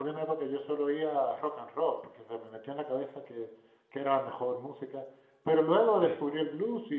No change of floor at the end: Yes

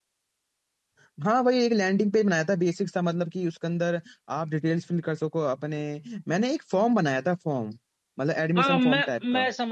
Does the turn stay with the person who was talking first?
No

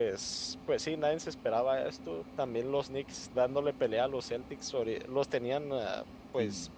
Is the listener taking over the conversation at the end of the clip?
No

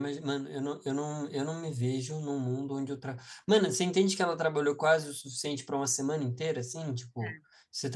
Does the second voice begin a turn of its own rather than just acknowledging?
No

